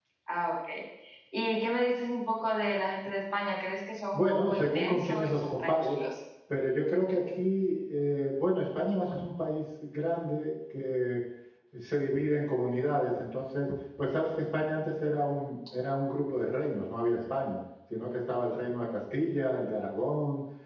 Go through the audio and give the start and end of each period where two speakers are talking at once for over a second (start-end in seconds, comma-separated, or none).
4.1-6.0